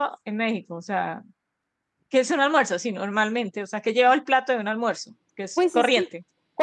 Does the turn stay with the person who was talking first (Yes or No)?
No